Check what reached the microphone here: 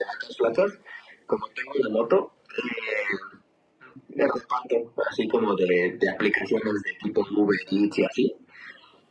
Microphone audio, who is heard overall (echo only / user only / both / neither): echo only